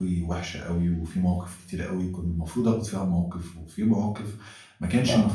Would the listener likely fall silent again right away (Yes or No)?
Yes